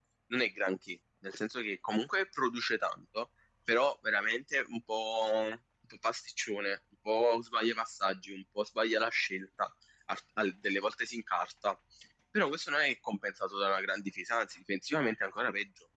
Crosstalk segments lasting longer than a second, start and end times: none

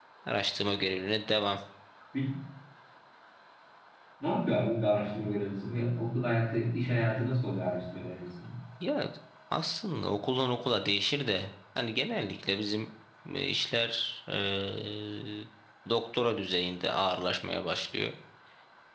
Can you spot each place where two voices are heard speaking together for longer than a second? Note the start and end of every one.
none

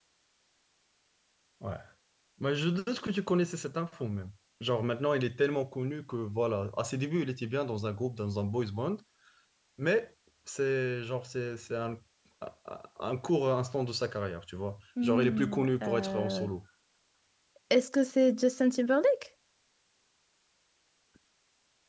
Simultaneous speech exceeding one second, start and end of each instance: 15.0-16.5

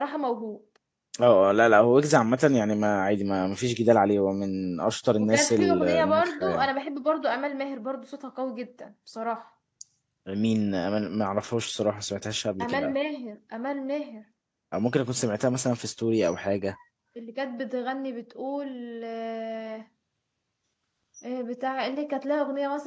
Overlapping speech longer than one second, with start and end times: 5.2-6.7

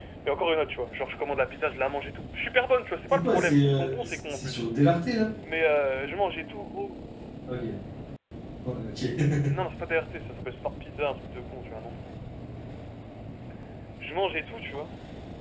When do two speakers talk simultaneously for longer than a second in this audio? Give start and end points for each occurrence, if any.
3.1-4.6

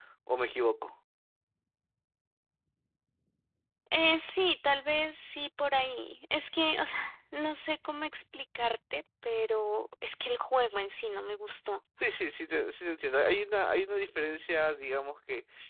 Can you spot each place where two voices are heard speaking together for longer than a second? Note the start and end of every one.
none

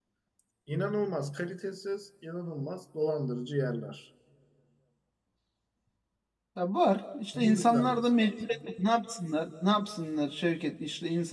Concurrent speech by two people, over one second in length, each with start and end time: 7.3-8.6

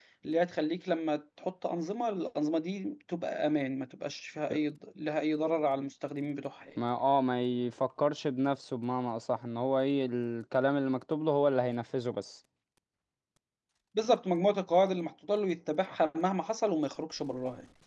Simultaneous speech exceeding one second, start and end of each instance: none

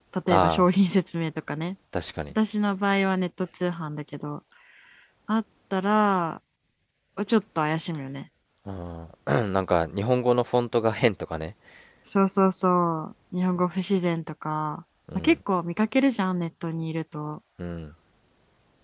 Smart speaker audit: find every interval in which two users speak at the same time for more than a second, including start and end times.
none

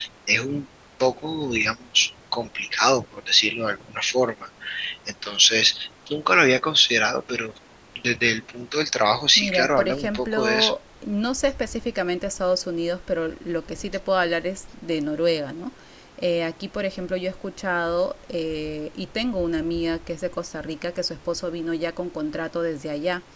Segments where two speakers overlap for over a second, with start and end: 9.3-10.7

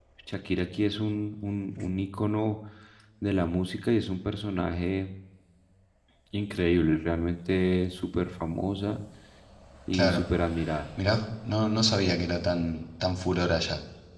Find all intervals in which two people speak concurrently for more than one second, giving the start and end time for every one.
none

